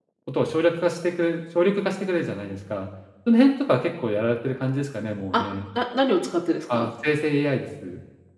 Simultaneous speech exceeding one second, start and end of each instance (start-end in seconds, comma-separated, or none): none